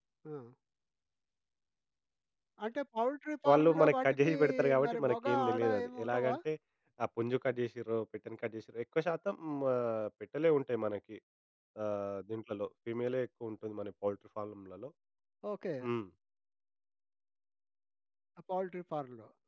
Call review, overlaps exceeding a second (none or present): present